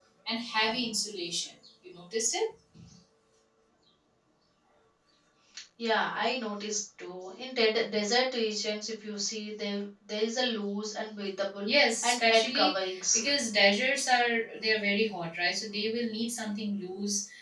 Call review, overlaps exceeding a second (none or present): present